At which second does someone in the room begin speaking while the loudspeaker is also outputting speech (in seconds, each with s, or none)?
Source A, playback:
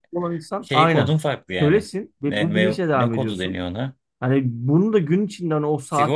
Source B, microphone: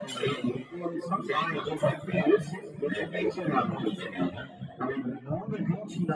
none